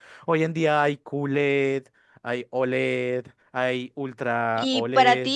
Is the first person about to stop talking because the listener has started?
Yes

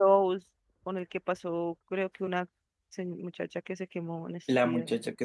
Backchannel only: No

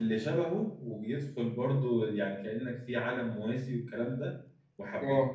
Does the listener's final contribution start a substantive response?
No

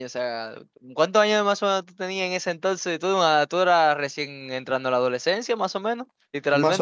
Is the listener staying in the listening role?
No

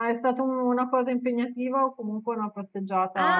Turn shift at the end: Yes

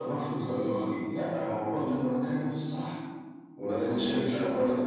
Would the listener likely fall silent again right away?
No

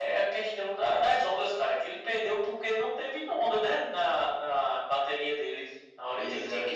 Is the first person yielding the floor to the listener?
No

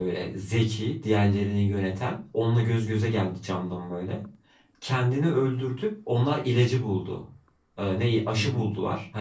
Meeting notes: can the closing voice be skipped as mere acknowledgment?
Yes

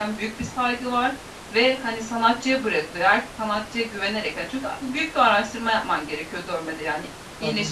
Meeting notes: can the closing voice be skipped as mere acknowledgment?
Yes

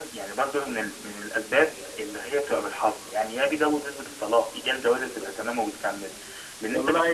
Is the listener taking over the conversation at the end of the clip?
Yes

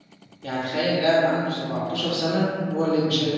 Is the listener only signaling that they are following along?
No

